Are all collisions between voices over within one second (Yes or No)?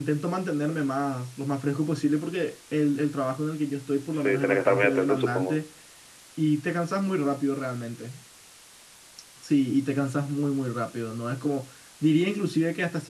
No